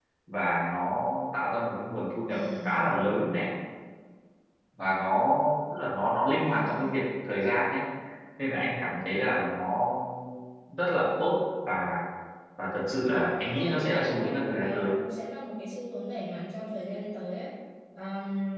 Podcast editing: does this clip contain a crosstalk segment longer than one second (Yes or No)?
Yes